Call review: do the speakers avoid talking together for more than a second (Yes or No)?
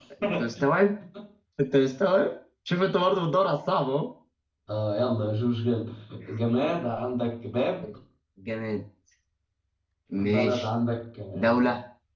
Yes